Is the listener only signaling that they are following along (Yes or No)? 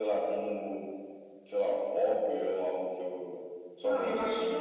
No